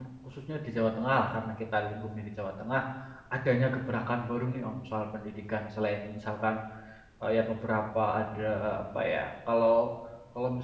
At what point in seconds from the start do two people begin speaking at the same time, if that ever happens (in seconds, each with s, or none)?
none